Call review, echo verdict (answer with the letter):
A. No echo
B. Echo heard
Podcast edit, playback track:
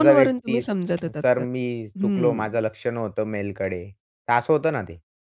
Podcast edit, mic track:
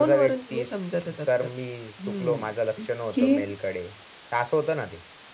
B